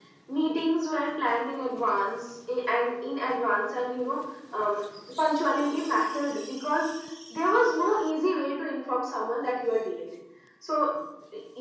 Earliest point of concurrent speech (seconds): none

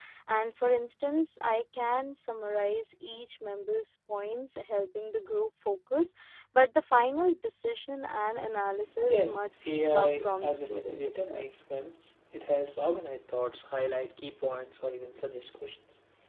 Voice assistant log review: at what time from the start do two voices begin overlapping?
9.1 s

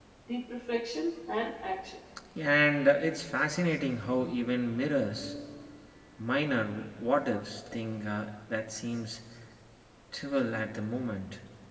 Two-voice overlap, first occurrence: none

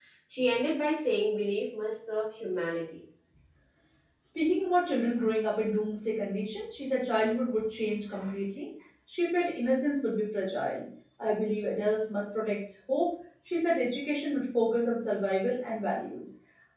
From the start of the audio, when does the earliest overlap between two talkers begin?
none

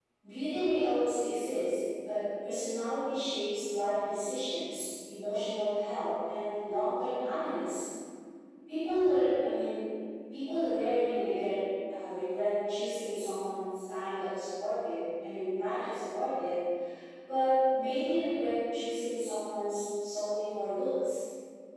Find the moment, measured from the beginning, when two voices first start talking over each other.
none

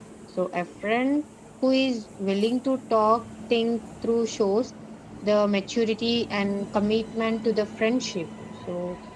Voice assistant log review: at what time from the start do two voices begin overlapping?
none

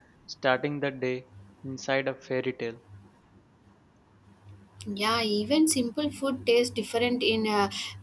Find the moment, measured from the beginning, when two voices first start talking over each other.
none

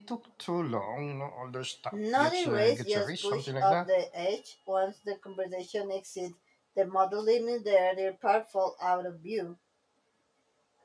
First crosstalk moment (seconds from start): 1.9 s

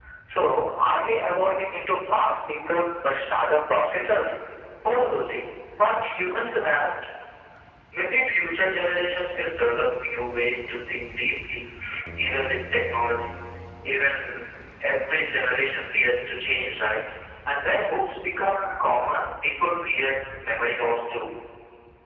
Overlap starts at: none

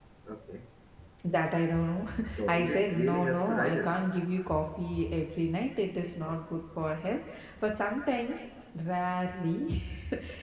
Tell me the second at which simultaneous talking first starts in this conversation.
2.5 s

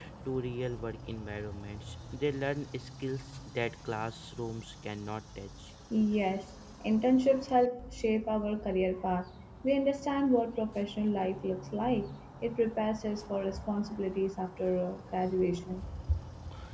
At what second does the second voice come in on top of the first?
none

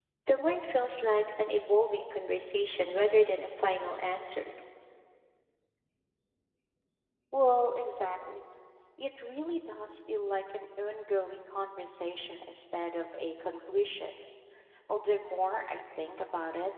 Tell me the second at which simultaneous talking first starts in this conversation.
none

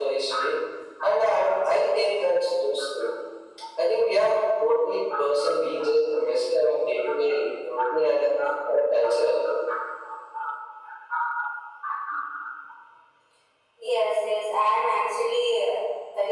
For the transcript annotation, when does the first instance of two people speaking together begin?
none

